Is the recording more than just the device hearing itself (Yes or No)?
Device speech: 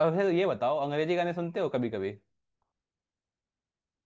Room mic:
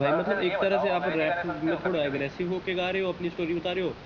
Yes